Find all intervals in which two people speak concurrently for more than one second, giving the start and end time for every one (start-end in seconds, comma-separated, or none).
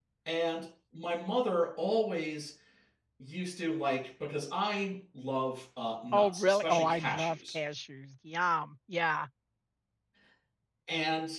6.1-7.6